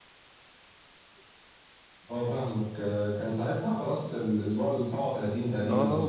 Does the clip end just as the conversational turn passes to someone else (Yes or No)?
Yes